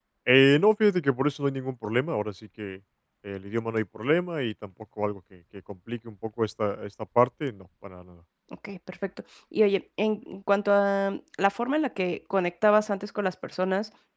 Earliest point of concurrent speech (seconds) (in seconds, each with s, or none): none